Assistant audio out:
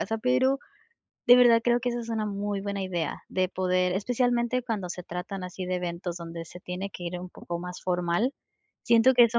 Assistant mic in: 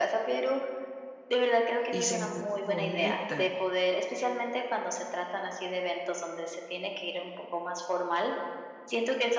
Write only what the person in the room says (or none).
y sentirte bonita